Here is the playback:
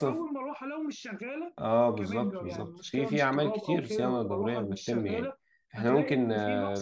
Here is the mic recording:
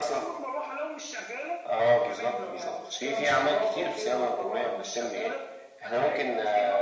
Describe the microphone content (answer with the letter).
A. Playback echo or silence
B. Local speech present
A